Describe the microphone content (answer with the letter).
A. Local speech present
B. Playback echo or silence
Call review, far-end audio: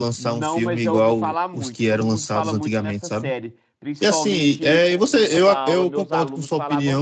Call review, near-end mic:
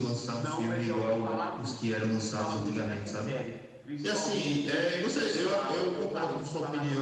B